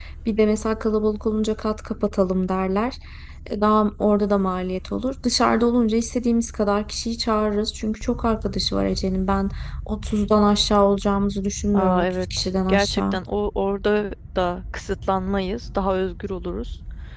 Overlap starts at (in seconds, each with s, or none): 11.7 s